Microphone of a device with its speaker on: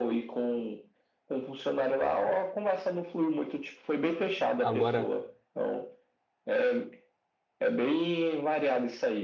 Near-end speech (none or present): present